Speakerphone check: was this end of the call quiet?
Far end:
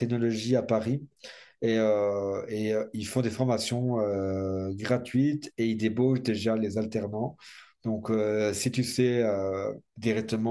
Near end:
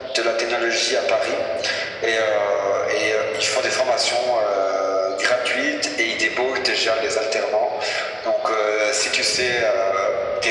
Yes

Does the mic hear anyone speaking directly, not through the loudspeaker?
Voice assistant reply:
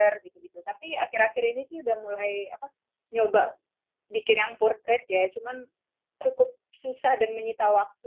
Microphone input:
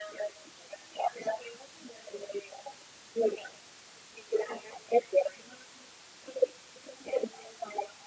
No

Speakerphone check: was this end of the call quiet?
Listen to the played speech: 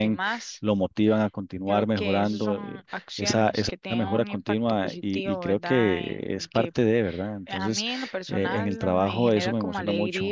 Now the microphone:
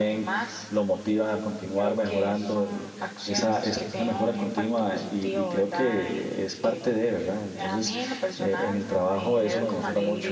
Yes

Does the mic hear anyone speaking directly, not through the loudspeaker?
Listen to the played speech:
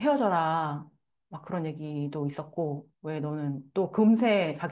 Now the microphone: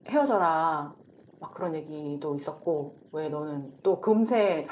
No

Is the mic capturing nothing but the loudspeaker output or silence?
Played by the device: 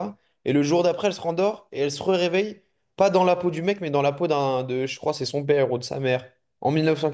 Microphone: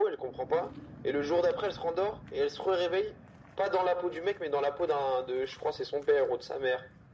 Yes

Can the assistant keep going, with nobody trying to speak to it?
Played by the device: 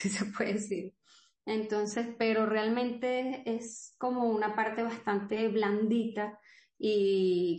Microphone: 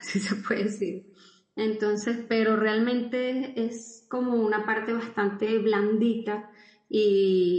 Yes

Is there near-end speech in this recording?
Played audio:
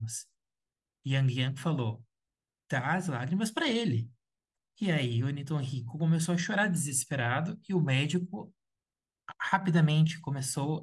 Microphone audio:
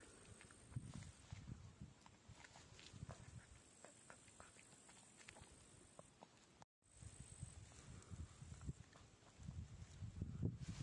No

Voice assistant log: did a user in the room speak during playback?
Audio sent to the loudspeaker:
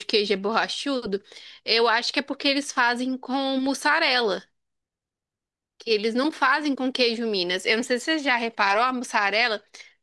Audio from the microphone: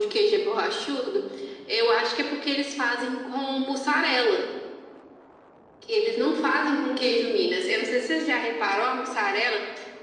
No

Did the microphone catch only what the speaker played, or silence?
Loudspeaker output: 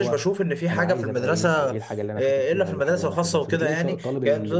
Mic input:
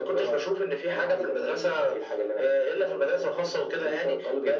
Yes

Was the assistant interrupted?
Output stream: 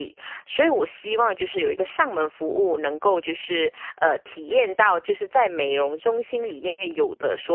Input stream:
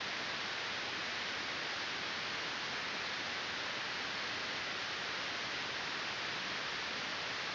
No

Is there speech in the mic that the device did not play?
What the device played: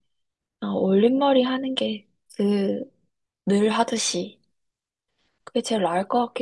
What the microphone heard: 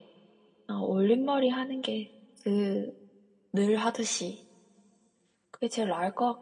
No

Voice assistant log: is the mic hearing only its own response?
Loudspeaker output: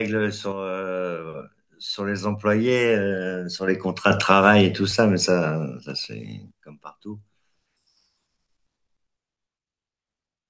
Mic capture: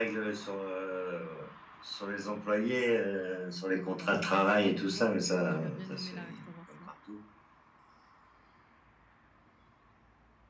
No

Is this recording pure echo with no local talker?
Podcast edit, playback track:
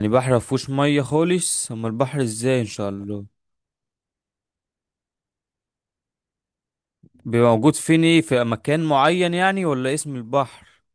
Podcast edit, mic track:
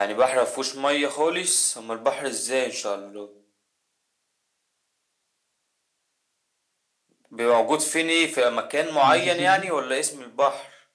No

